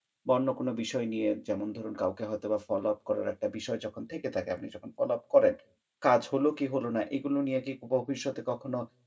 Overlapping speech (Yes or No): No